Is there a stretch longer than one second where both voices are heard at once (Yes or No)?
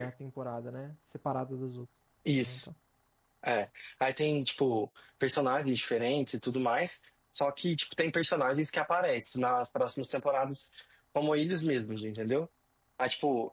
No